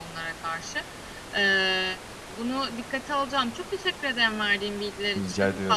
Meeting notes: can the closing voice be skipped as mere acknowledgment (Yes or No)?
Yes